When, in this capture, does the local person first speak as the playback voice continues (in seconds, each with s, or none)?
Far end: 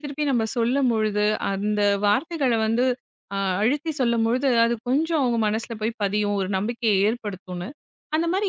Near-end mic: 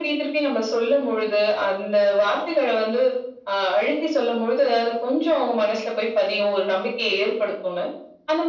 none